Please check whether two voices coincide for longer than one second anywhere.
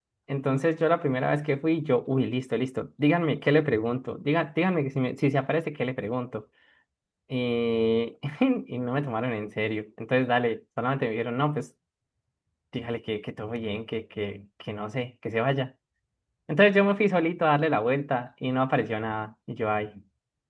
No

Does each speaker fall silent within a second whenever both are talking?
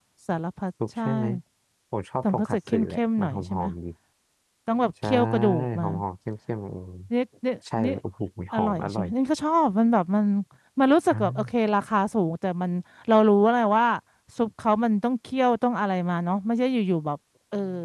No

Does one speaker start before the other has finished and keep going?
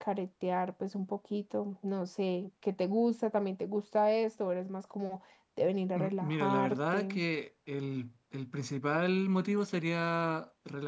Yes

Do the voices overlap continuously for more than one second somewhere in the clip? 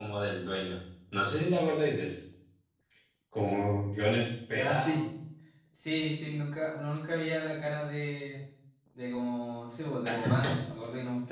No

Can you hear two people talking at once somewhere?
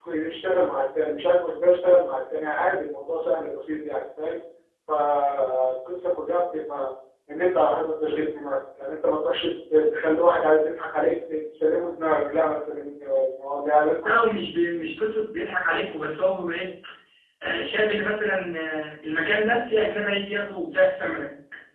No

